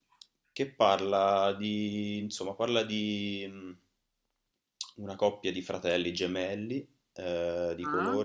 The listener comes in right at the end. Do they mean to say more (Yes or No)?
No